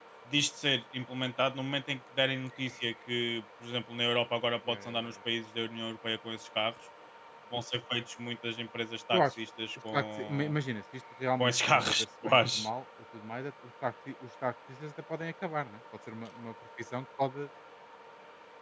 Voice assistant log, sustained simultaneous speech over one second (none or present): present